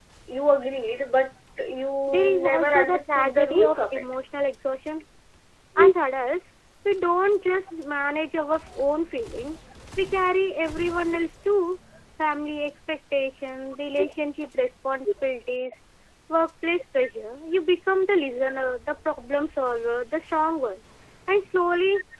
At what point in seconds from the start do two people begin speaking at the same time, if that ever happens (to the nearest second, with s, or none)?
2 s